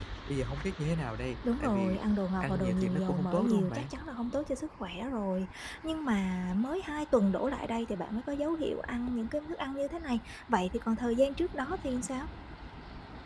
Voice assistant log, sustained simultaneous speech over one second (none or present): present